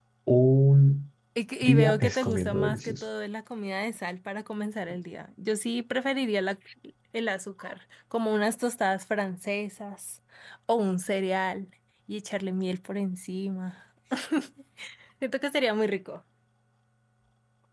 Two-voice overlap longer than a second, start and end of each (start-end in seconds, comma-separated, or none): 1.6-2.9